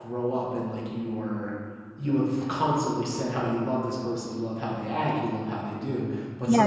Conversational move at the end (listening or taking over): taking over